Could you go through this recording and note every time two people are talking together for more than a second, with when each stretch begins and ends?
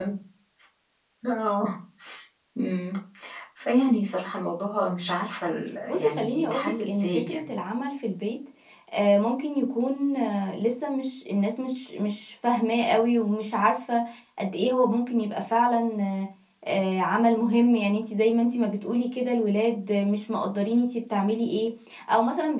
5.9-7.5

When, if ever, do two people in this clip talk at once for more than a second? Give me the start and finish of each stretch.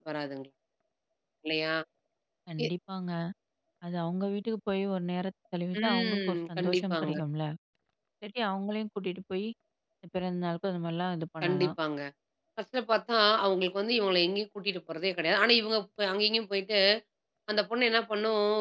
5.8-7.1

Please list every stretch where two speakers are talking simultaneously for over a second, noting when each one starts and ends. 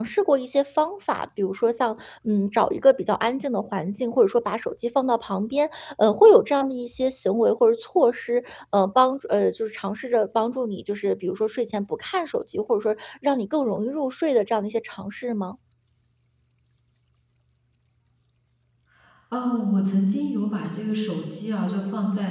none

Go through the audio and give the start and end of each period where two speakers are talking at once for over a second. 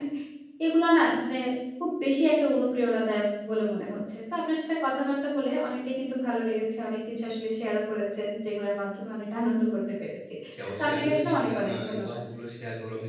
10.8-12.2

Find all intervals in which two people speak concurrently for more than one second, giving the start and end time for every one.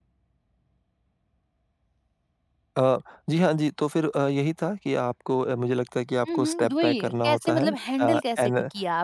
6.3-8.5

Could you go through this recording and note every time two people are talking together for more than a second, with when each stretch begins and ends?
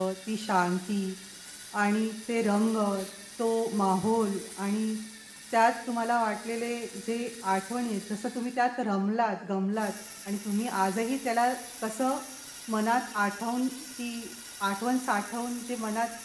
none

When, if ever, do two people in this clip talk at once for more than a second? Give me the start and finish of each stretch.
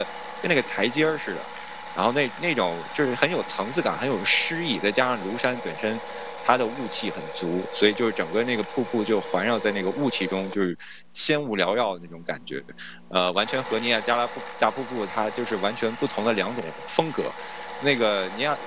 none

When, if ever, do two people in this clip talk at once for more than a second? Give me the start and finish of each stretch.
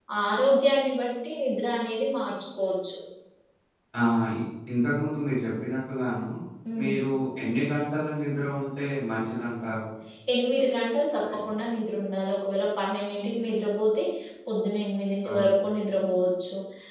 none

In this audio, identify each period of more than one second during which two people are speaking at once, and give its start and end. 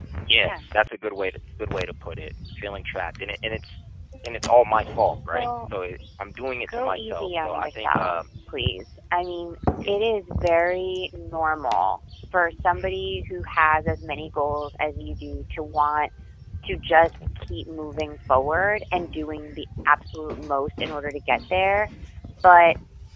6.7-8.1

